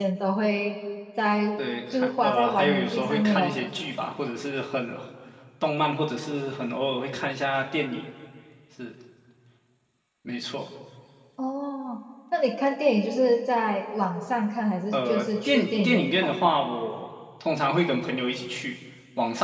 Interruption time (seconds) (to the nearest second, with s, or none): 2 s